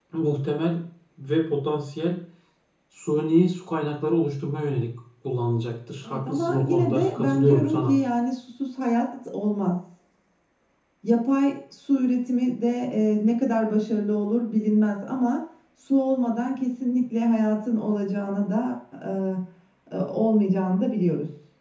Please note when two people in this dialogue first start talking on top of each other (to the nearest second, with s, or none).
6 s